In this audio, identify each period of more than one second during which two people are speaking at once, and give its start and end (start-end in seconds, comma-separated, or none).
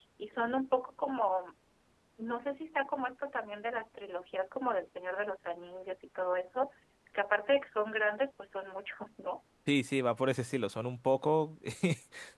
none